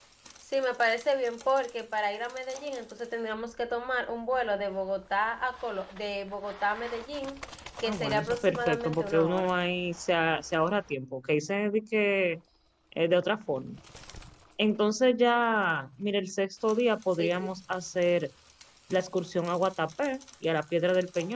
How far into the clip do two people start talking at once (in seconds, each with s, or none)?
7.8 s